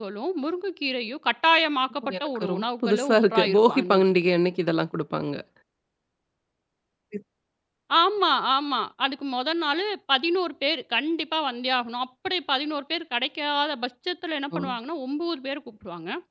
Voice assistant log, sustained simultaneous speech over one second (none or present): present